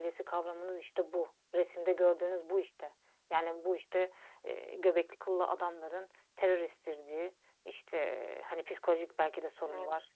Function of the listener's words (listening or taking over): listening